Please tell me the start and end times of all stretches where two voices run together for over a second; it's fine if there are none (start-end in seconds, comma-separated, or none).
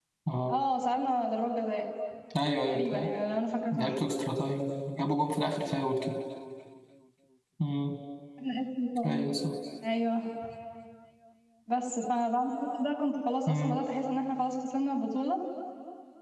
none